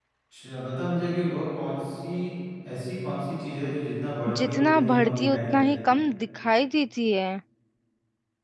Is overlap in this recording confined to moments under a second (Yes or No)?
No